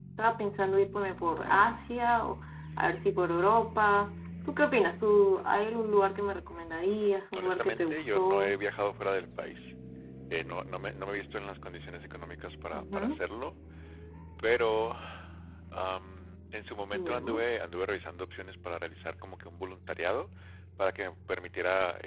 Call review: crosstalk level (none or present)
present